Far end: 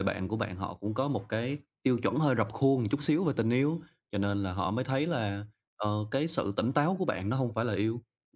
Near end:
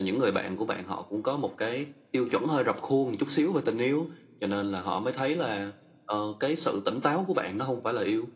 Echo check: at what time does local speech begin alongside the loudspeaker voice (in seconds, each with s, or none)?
none